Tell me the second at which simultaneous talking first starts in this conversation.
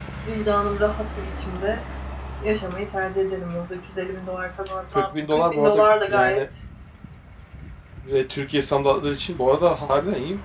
4.9 s

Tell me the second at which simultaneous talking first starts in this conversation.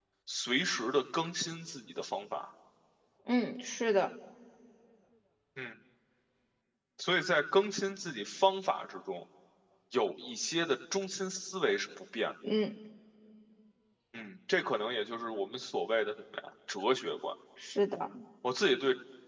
none

